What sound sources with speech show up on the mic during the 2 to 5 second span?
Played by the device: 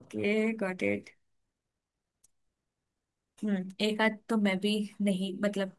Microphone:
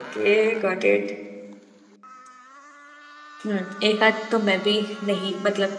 echo only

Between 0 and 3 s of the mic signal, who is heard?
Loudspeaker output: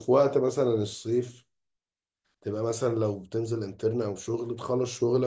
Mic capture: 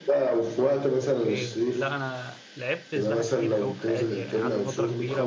both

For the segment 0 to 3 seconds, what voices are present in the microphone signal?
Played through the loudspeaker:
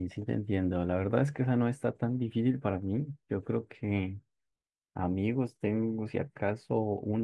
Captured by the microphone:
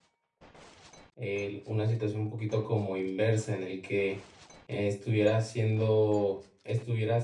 user only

